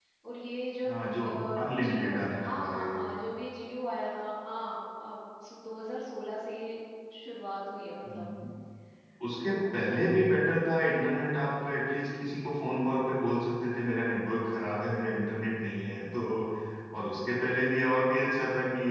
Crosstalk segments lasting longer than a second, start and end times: 0.8-2.9

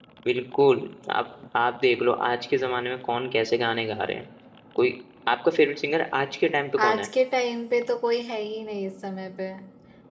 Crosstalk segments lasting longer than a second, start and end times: none

